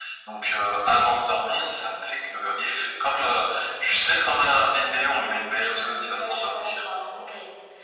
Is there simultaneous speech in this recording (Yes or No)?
Yes